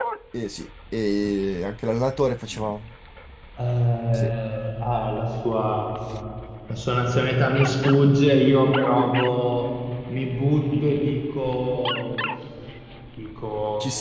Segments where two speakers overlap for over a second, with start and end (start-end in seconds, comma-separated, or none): none